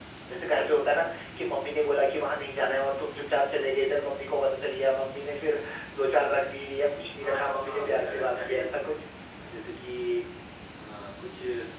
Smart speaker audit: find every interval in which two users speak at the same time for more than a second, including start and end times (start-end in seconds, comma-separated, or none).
7.3-8.6